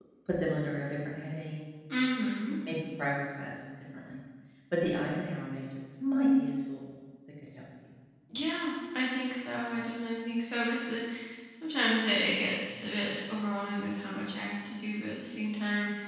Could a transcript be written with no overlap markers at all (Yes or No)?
Yes